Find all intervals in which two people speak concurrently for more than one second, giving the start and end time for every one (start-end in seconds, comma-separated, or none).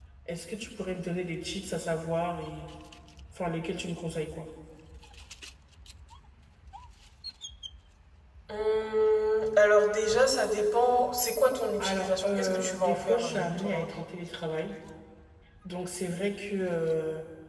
11.8-14.0